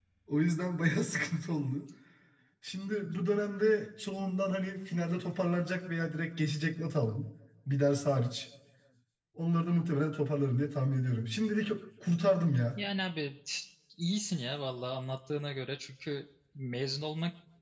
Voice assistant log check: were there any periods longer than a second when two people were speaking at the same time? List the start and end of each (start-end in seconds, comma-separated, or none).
none